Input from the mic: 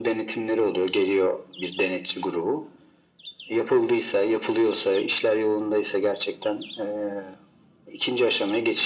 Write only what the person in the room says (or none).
none